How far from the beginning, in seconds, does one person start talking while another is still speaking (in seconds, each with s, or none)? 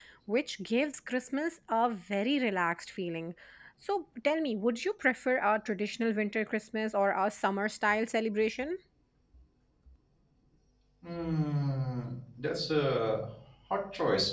none